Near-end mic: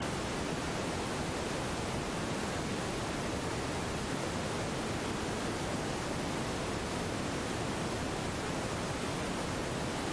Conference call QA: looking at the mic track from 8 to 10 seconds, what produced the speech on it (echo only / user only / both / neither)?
neither